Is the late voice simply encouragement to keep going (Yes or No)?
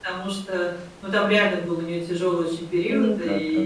Yes